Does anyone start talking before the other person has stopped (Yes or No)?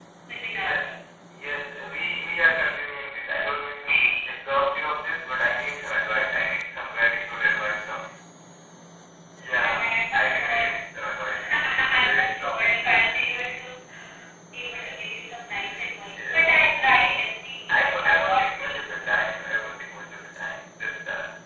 Yes